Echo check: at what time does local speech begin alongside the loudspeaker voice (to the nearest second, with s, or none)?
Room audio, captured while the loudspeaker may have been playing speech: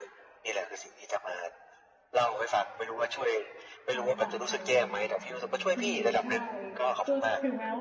4 s